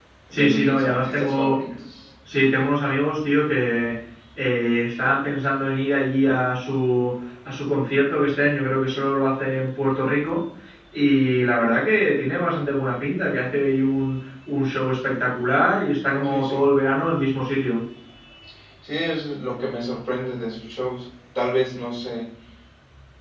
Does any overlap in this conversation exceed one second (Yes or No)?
Yes